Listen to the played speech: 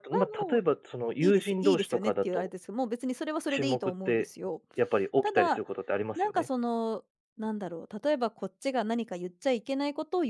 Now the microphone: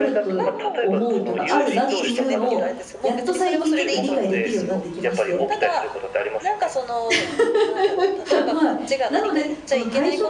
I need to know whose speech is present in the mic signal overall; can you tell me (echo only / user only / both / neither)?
both